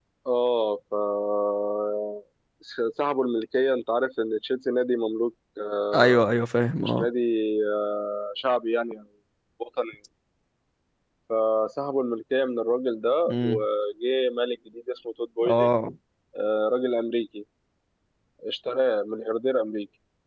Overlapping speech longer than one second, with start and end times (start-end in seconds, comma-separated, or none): none